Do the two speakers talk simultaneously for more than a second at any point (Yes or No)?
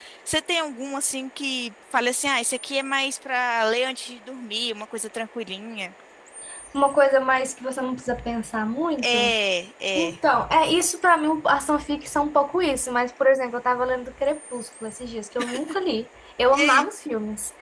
No